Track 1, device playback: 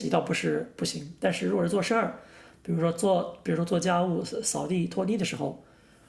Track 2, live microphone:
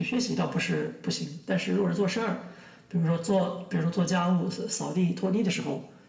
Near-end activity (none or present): none